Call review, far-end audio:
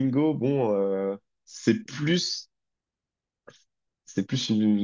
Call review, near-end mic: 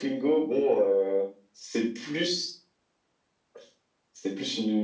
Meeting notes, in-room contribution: none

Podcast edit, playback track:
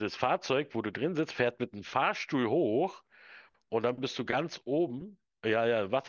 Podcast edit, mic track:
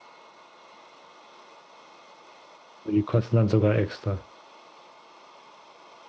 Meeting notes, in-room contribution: present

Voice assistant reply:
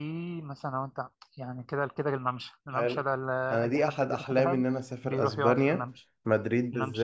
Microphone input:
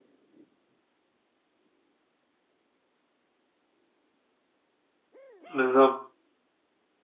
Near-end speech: present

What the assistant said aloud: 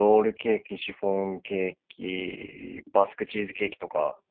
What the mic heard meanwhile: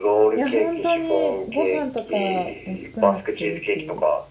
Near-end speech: present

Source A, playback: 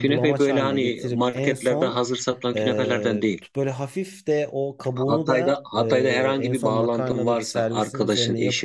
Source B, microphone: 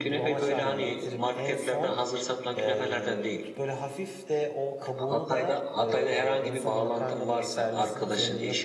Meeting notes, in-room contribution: present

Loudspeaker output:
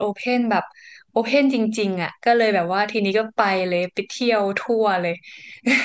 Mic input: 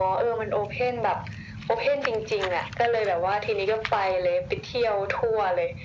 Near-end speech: none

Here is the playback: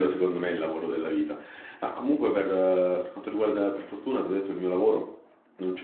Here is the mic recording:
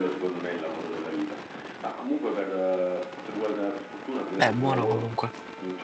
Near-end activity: present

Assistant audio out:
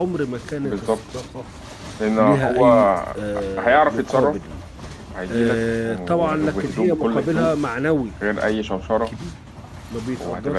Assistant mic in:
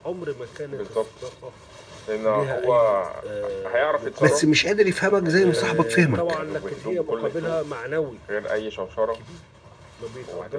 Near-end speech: present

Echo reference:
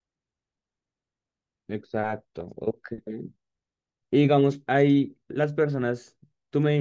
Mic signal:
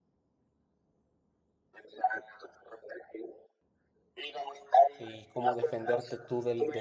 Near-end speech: present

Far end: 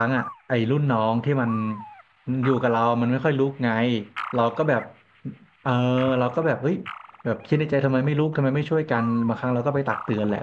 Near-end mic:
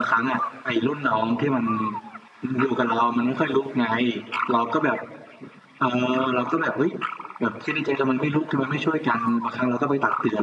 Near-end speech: none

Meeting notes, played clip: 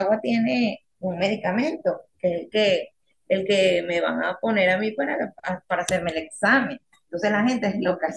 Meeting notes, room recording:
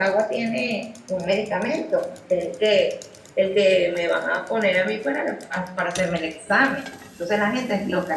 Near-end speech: none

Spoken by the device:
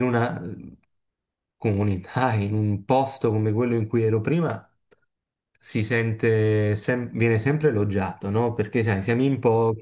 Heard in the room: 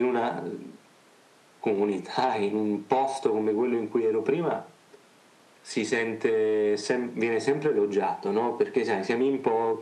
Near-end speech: none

